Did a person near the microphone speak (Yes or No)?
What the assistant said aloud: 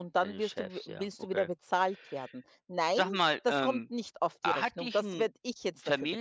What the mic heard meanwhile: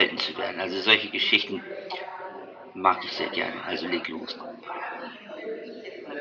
Yes